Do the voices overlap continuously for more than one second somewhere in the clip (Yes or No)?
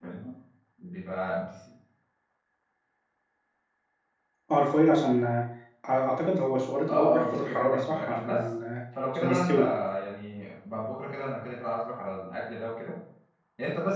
Yes